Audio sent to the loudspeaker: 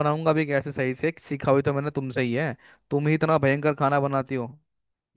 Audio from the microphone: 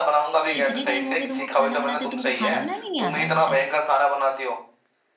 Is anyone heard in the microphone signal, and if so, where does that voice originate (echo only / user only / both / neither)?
both